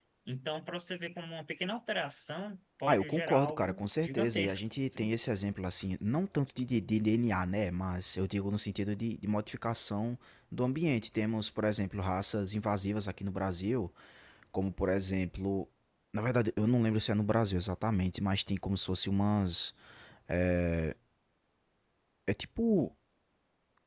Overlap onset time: 2.9 s

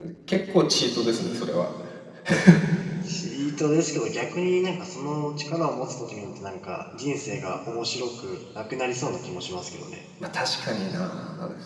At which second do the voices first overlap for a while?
none

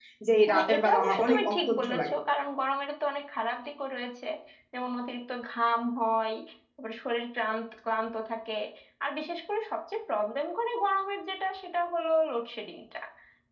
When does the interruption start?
0.5 s

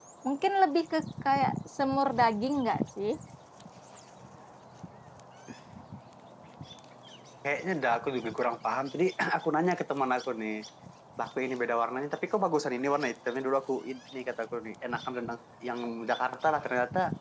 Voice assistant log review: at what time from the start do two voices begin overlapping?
none

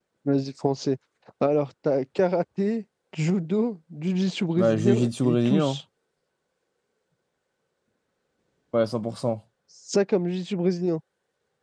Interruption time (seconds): 4.6 s

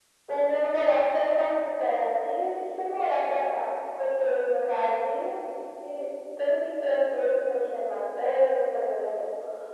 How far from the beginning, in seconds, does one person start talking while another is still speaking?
none

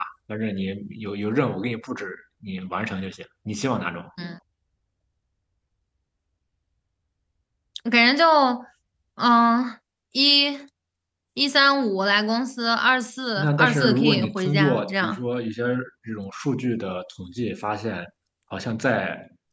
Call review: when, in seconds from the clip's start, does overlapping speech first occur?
13.4 s

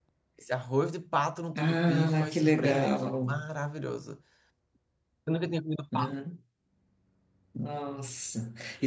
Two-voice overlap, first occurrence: 1.6 s

